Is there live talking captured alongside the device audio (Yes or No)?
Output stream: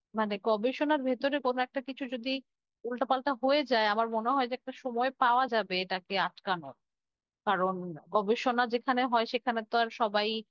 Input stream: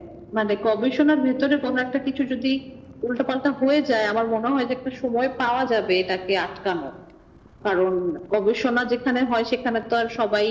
No